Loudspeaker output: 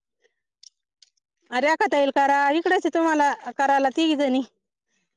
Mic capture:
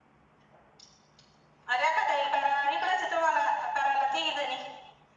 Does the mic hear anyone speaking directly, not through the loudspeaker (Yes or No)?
No